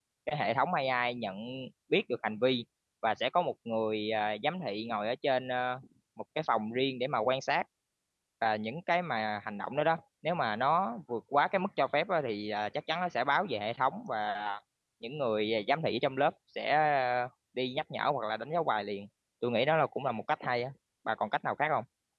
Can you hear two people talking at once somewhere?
No

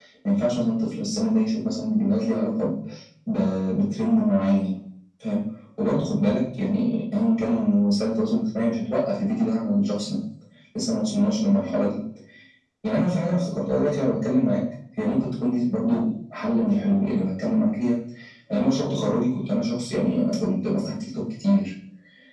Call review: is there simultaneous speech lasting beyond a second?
No

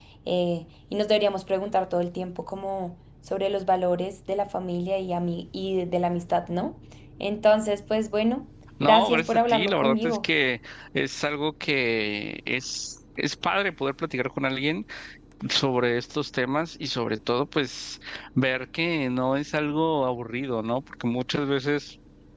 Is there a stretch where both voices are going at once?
Yes, from 8.8 s

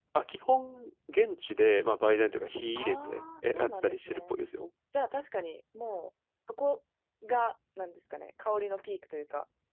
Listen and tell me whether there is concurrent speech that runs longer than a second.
Yes, from 2.8 s

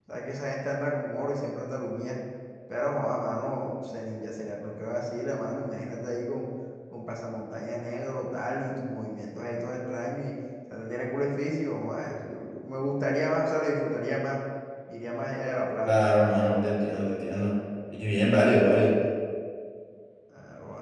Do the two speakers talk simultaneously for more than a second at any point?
No

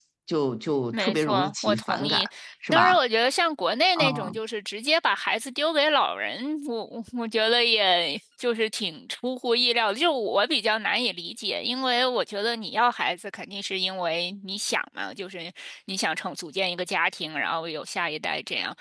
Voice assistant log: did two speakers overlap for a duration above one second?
Yes, from 0.9 s

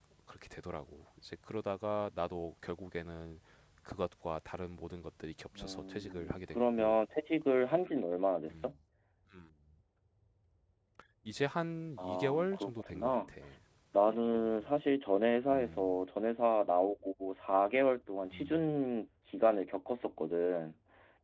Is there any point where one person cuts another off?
Yes, from 5.7 s

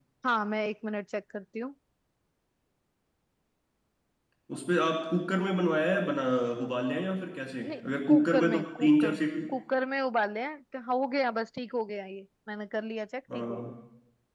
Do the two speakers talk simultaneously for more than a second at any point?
Yes, from 7.6 s

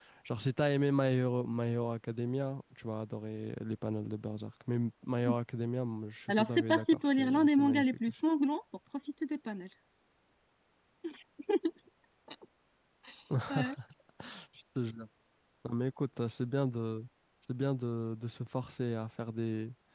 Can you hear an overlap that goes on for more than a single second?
Yes, from 6.3 s

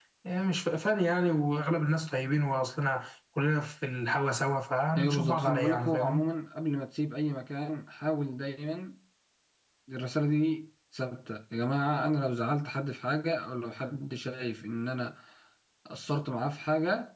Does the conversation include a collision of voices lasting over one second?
Yes, from 5.0 s

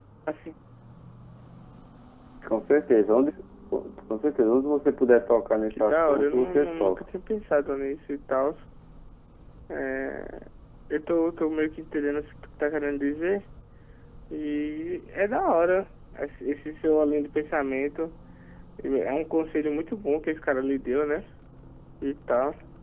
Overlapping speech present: Yes, from 5.7 s

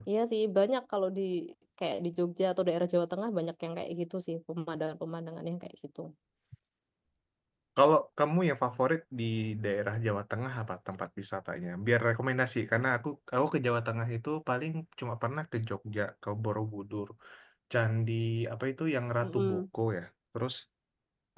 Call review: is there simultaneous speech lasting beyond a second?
No

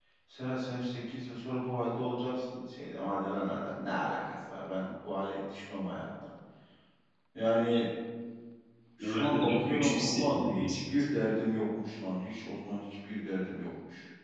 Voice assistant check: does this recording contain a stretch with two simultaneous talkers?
Yes, from 9.0 s

